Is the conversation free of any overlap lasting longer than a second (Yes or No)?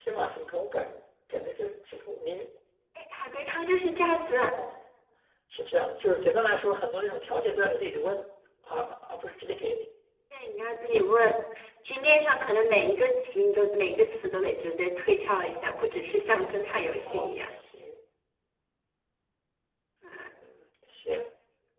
Yes